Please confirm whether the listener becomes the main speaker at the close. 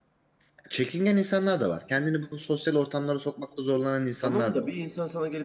Yes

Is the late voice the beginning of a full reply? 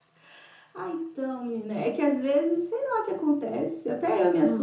No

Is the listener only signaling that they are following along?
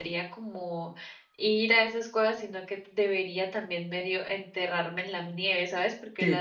Yes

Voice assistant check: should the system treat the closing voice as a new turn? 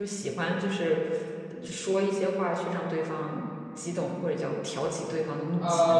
Yes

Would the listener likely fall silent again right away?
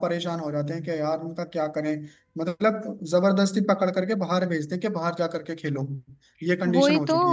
No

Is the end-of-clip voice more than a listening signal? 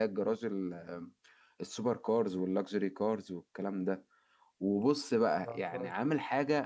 No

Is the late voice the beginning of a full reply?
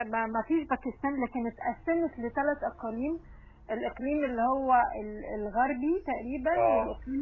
No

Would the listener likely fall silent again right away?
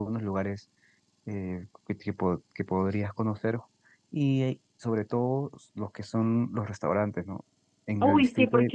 No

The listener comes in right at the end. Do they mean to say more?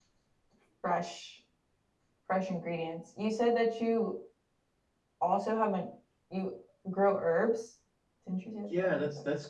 Yes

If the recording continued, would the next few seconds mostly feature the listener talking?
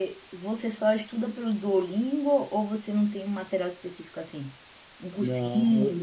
Yes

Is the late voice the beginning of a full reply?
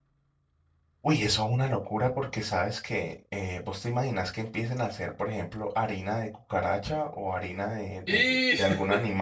No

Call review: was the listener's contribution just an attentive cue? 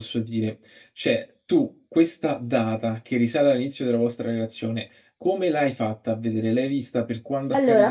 No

